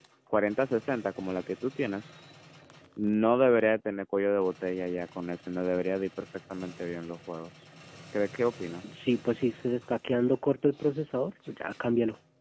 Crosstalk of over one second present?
No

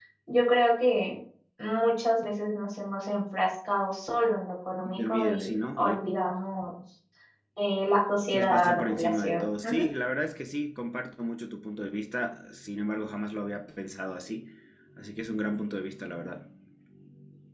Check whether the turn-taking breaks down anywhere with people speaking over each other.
Yes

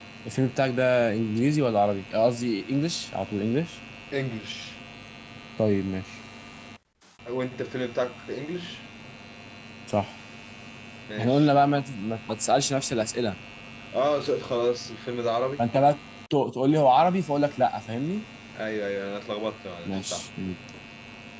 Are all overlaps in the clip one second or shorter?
Yes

